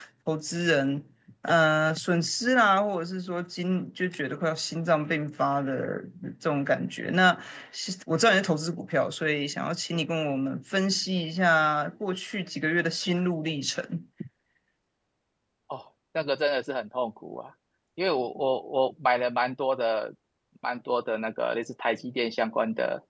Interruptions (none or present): none